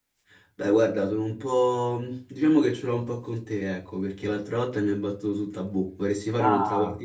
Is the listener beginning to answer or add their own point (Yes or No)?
Yes